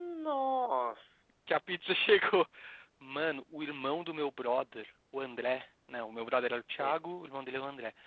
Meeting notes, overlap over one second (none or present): none